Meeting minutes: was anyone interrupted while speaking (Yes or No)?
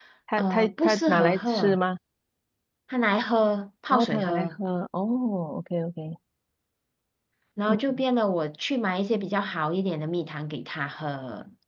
Yes